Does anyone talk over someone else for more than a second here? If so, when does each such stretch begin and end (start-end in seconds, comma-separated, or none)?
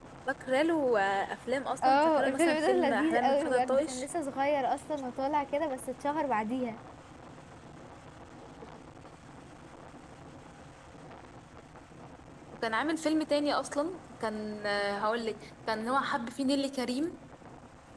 1.8-4.0